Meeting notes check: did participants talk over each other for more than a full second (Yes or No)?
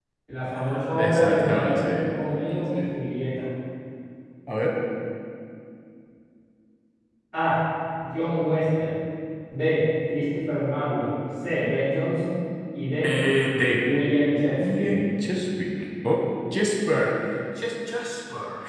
Yes